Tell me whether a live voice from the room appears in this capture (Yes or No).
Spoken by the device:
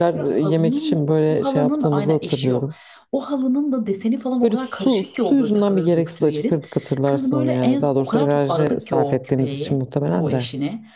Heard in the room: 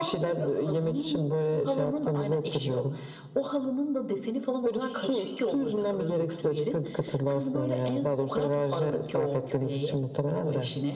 No